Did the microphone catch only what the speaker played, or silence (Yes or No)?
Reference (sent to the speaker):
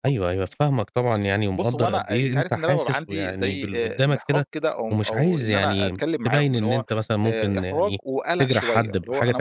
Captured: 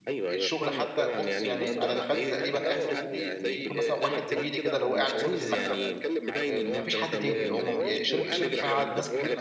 No